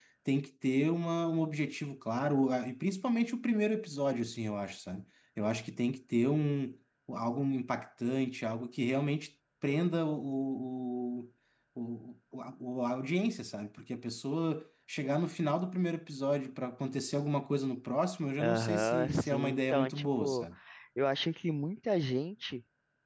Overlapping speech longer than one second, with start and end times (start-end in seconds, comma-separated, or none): 18.4-20.4